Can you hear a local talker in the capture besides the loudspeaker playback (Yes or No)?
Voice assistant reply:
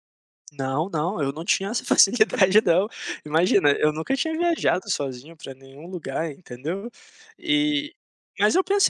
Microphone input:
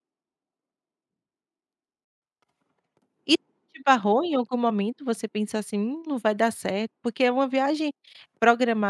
Yes